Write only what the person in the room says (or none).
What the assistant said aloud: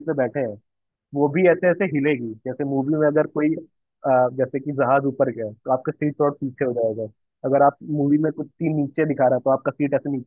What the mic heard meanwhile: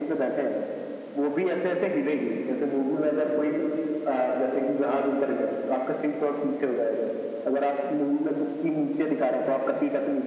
none